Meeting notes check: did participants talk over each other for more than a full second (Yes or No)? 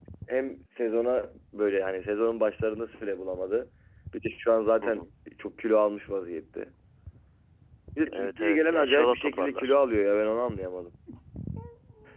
Yes